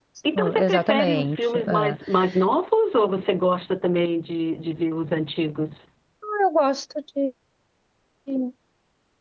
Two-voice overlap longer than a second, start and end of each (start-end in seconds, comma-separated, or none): 0.6-2.0